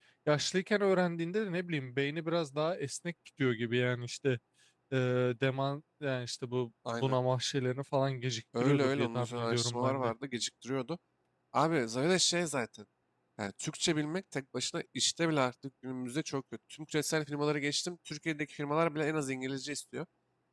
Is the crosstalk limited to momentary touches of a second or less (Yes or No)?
No